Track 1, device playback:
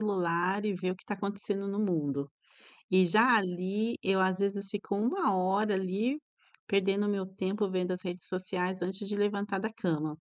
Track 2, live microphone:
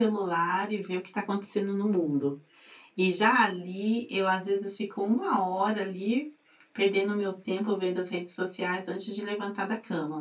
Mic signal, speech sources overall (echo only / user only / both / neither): echo only